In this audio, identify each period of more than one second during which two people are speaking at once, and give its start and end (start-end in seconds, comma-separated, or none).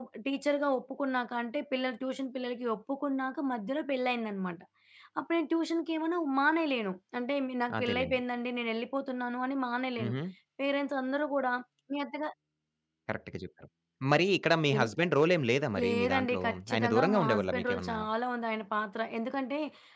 15.8-18.0